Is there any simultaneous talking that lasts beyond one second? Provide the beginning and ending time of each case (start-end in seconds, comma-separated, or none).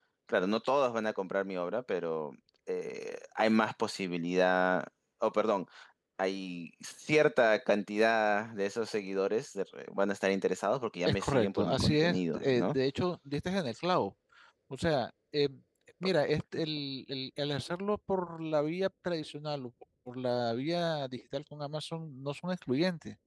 11.1-12.8